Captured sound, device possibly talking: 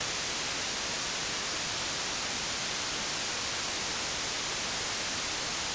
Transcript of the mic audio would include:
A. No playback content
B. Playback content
A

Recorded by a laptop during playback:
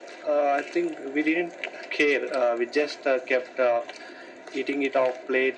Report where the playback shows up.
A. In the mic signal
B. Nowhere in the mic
A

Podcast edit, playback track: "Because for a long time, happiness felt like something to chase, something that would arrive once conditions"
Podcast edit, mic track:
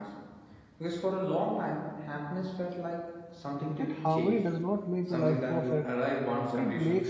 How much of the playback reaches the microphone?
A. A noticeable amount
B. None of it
A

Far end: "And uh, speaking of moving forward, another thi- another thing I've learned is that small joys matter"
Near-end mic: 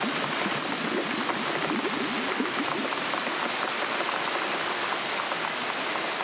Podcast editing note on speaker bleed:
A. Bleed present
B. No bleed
B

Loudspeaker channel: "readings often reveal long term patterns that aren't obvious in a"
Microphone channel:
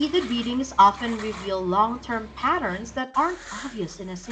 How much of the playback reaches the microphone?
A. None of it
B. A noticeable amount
B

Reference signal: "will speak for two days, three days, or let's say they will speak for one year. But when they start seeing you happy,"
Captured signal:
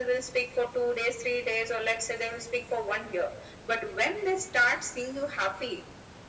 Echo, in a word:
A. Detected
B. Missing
A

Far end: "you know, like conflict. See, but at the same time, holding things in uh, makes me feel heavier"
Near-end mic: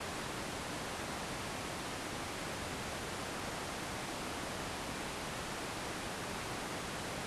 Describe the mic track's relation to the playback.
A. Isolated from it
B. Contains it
A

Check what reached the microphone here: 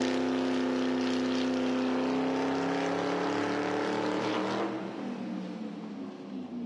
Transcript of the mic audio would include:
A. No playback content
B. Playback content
A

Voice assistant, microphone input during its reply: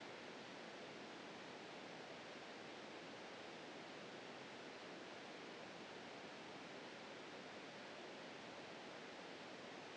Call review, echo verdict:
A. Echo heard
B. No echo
B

